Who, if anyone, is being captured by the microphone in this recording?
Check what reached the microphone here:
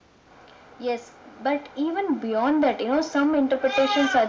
echo only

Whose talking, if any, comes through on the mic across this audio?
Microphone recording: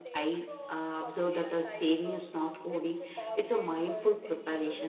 both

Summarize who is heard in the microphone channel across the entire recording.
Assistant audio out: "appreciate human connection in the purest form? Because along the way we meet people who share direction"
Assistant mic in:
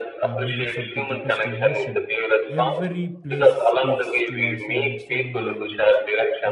both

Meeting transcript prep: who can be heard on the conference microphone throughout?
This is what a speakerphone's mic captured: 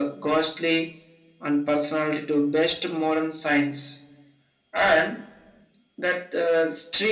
echo only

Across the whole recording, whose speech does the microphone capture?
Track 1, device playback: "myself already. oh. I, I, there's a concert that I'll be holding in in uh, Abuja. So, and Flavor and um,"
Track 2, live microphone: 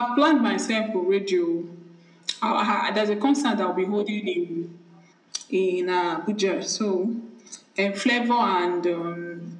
echo only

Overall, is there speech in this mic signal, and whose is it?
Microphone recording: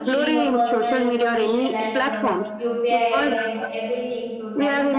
both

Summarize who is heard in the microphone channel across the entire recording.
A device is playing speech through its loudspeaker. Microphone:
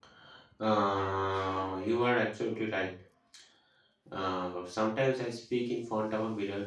user only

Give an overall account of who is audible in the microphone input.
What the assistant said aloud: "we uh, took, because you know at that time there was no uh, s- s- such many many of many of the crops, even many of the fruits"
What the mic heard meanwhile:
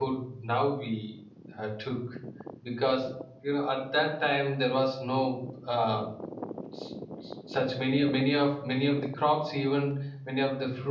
echo only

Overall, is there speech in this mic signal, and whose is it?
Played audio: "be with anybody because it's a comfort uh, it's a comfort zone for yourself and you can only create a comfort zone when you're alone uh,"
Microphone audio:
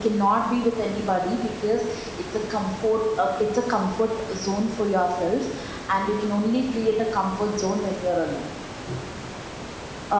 echo only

